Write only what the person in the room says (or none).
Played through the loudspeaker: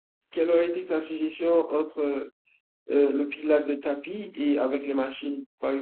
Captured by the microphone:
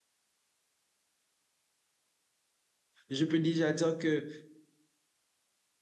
je peux déjà dire que